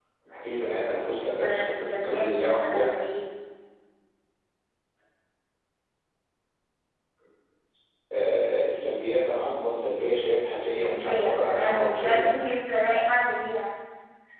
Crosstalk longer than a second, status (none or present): present